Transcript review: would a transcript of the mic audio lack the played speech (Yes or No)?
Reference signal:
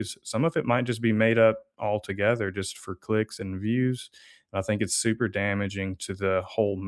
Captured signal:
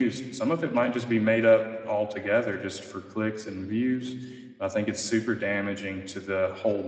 No